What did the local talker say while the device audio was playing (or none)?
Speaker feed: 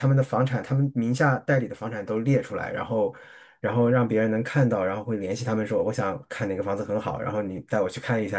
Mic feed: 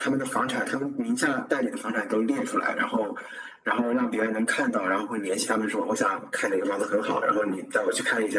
none